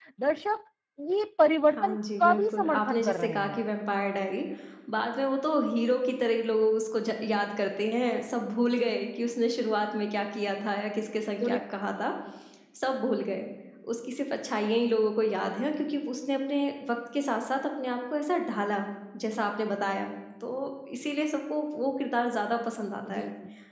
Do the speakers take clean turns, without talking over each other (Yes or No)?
No